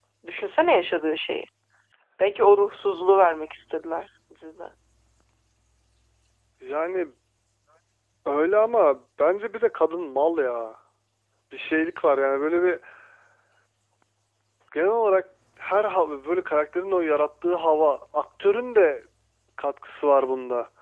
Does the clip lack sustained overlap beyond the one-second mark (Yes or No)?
Yes